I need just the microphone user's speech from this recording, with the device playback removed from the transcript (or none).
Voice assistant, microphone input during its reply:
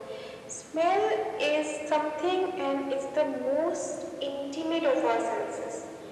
none